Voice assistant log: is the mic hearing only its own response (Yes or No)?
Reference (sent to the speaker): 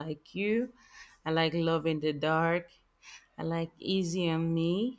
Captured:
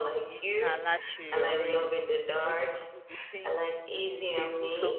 No